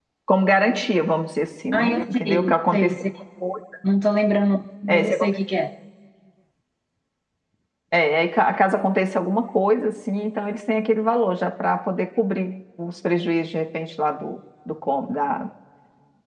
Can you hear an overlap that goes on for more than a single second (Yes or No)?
Yes